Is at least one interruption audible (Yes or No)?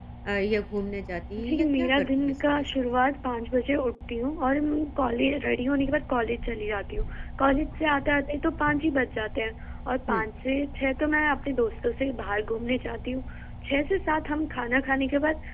Yes